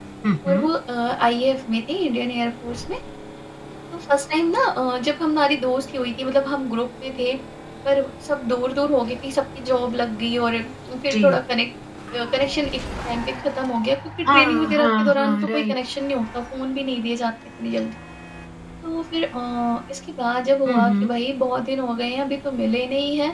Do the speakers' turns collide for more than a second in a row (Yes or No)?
Yes